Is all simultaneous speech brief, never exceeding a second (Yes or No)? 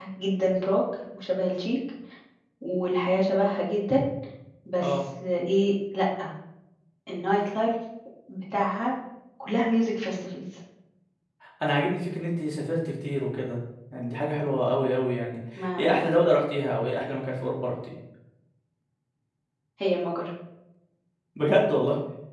Yes